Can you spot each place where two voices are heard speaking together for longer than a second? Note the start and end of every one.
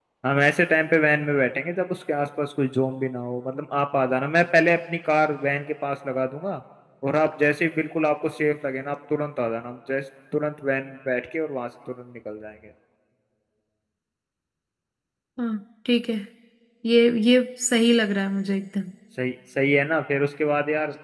none

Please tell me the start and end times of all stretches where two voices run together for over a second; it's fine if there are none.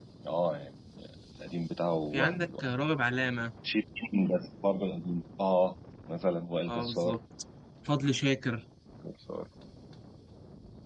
none

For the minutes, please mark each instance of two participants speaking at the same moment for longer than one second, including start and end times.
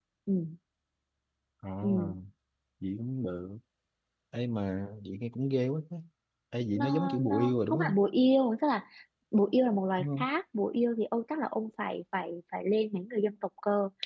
6.8-8.0

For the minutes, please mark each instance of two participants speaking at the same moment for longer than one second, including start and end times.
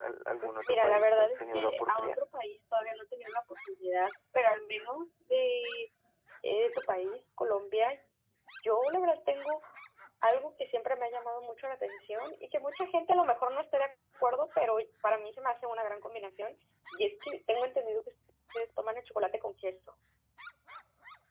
0.7-2.1

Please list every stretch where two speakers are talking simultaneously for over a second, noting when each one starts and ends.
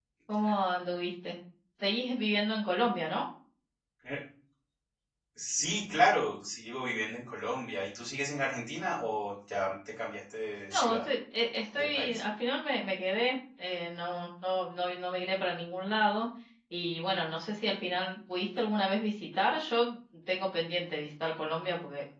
none

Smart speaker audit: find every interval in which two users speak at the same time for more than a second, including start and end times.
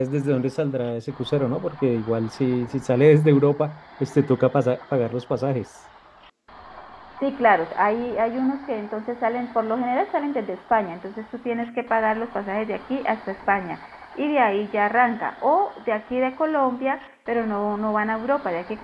none

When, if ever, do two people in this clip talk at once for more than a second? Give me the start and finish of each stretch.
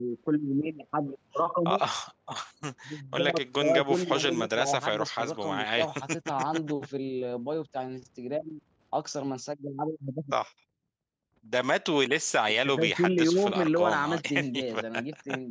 3.1-5.9, 12.5-14.8

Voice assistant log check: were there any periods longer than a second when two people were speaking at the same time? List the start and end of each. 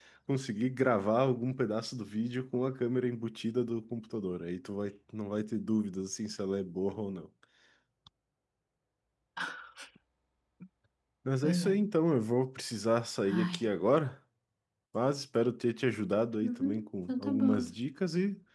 16.4-17.7

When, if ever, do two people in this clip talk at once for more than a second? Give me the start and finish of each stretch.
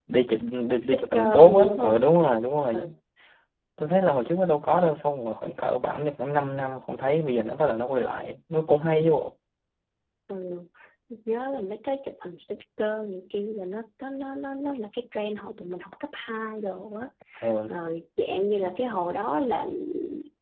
0.8-2.0

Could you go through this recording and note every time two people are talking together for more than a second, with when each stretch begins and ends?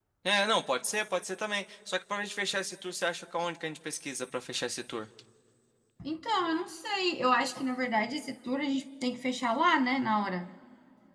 none

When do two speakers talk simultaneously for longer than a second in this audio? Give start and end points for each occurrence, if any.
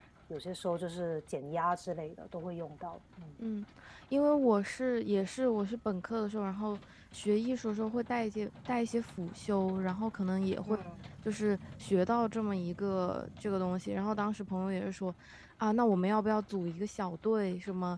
none

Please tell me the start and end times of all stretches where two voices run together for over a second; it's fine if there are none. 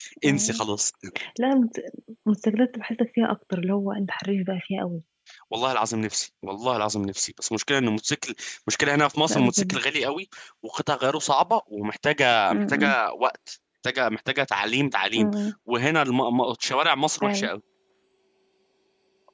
none

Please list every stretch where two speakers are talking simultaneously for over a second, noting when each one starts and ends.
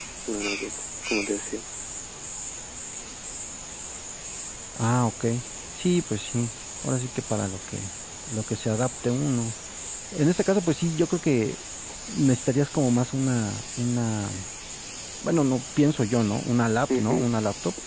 none

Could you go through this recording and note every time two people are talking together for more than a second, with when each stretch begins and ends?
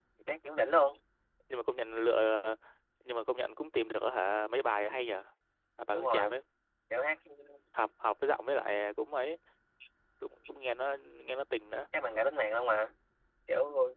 none

